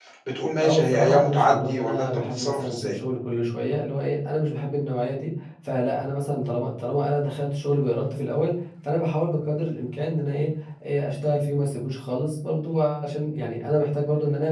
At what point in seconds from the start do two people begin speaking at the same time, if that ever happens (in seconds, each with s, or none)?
0.6 s